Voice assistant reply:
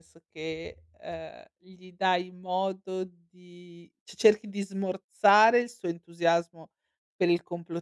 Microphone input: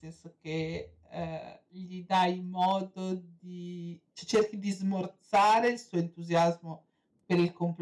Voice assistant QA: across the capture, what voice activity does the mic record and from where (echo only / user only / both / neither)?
echo only